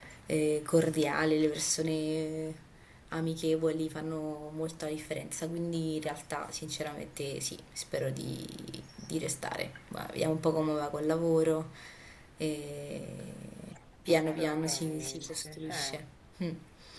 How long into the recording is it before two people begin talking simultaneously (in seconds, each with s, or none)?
14.2 s